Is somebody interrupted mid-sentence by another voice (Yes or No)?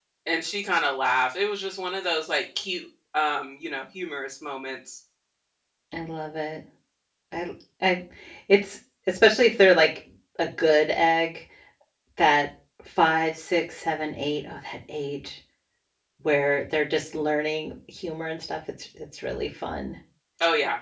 No